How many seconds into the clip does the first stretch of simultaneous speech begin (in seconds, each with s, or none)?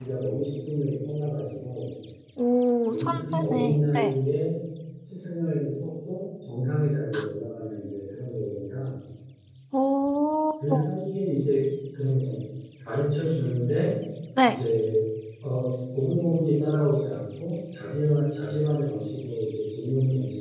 2.9 s